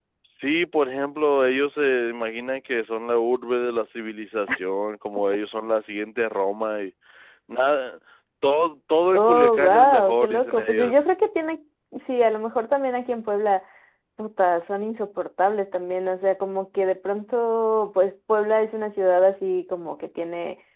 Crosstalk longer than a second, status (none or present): present